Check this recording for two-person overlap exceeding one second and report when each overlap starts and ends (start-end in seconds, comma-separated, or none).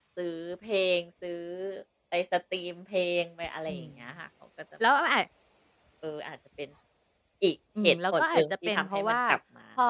7.8-9.2